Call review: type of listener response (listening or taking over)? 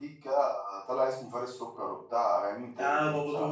taking over